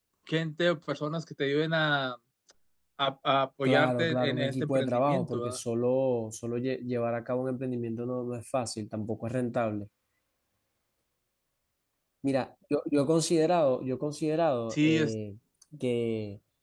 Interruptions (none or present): present